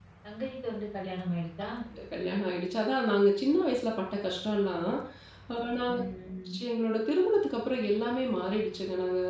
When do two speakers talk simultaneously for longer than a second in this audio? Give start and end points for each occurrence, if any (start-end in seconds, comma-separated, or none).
none